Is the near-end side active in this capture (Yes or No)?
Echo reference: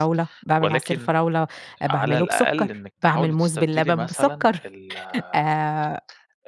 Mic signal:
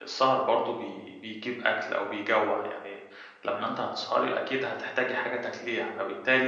Yes